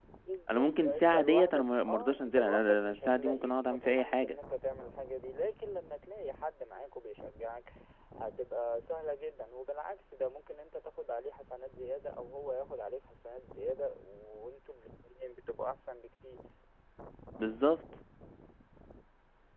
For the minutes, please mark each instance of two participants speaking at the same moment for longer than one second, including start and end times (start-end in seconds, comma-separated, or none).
0.5-4.4